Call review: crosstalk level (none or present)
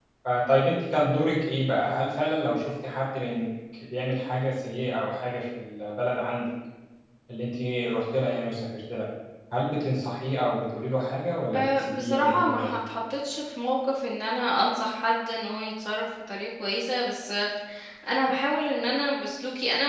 present